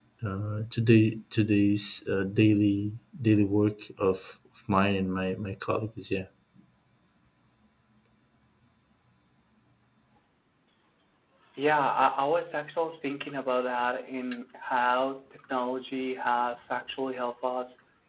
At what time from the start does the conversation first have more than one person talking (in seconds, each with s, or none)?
none